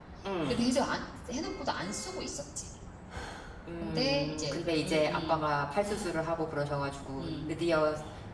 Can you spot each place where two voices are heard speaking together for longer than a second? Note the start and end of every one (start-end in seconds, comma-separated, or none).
3.8-5.4